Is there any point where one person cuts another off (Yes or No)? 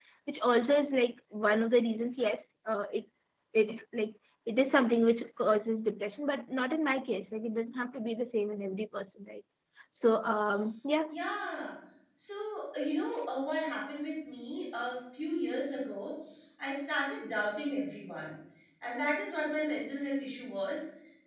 No